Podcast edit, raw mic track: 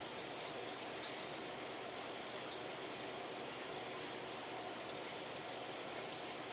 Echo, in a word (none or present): none